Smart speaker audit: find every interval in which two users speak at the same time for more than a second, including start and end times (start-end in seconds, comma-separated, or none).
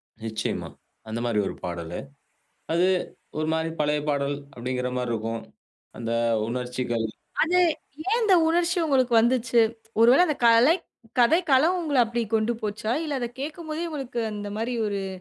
none